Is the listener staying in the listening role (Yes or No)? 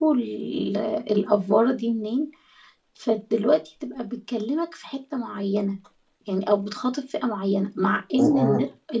Yes